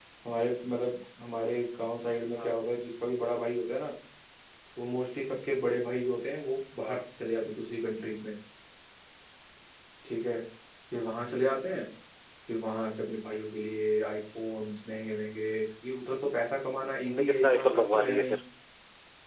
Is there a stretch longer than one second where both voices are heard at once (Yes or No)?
Yes